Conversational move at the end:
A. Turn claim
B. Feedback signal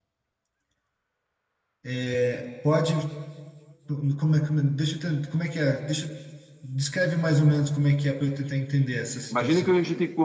A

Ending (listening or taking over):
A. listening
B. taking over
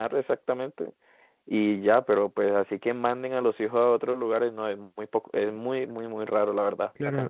B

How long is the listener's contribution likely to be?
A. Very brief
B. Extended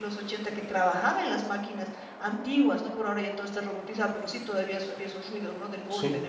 A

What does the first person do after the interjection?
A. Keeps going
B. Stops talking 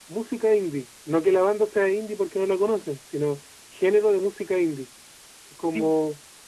A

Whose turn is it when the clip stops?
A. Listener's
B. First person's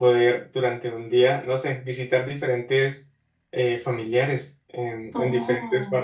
A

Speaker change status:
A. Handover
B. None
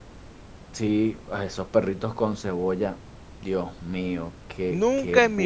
A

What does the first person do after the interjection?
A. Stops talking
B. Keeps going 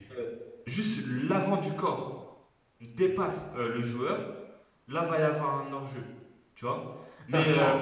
B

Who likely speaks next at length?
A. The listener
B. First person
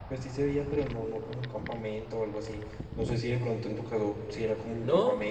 A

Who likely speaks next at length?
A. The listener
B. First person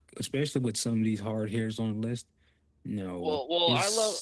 A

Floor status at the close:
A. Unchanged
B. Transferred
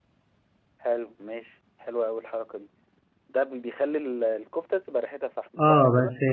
B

